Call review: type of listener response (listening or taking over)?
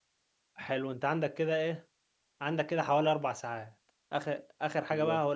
listening